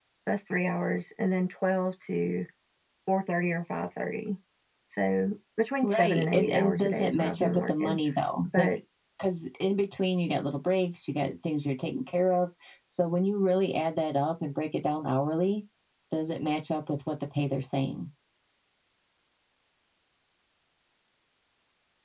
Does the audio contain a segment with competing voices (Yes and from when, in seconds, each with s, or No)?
Yes, from 5.8 s